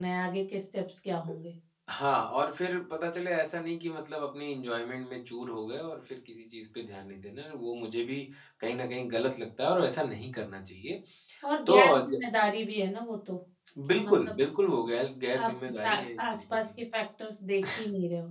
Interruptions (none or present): present